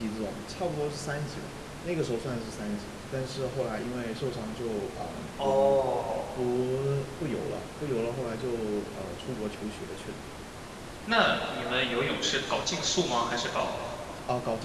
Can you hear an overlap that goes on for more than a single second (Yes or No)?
No